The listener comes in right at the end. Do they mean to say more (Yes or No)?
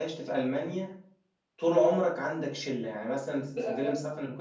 No